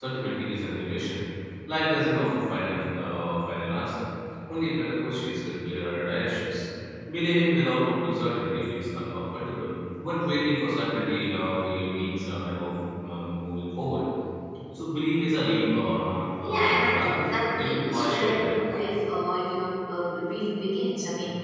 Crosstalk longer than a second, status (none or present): present